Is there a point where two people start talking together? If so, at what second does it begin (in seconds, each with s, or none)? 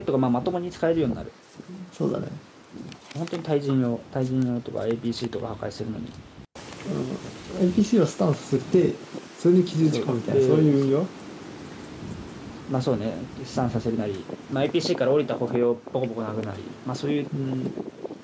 9.7 s